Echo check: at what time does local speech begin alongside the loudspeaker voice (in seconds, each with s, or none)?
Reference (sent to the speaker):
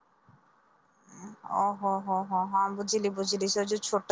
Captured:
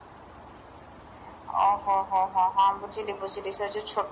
none